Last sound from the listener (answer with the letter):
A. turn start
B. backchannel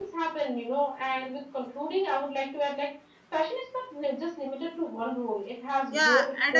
A